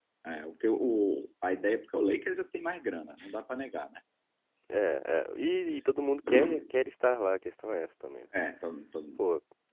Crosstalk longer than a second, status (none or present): none